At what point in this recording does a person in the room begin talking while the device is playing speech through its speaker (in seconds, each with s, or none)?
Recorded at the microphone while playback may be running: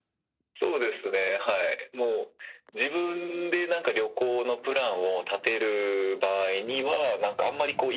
none